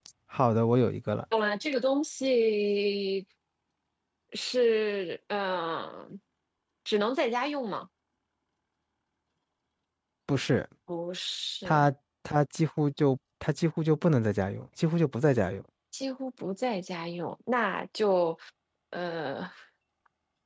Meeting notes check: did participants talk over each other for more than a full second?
No

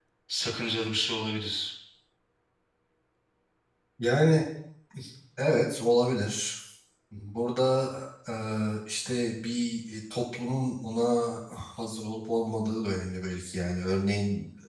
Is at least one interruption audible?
No

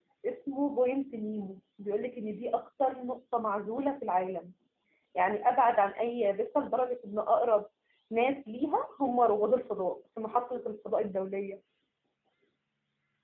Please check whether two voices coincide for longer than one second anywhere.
No

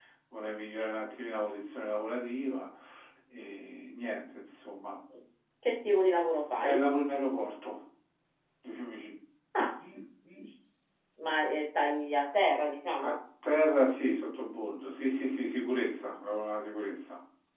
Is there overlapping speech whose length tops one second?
No

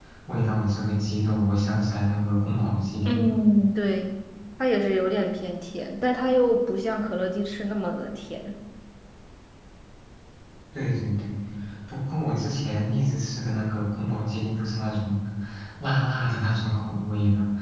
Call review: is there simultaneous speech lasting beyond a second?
No

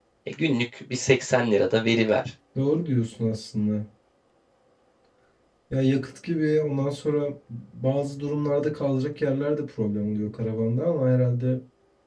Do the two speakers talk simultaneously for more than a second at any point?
No

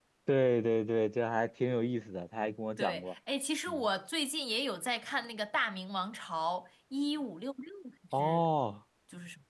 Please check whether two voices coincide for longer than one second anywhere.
No

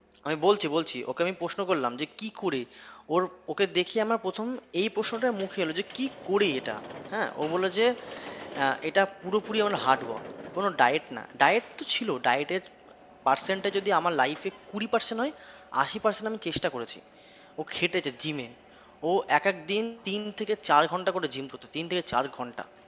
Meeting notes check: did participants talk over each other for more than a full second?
No

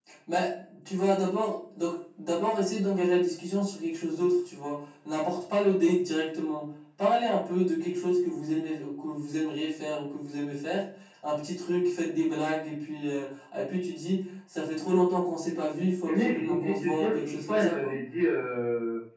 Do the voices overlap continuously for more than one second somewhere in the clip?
Yes, from 16.1 s

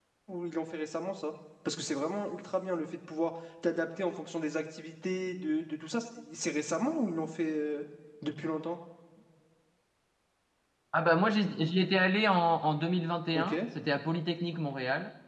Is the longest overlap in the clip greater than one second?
No

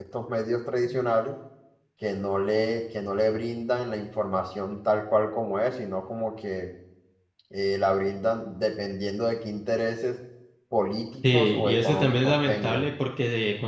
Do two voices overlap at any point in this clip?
Yes, from 11.3 s

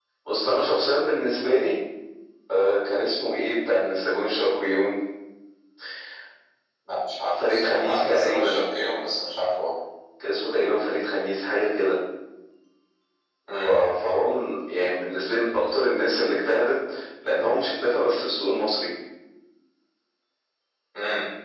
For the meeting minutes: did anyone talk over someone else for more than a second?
Yes, from 7.4 s

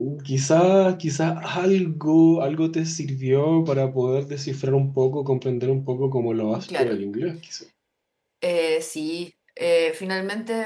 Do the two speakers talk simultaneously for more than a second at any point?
No

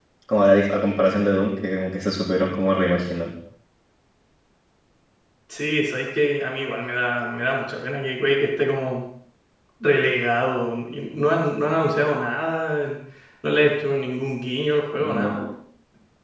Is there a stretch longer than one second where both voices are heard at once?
No

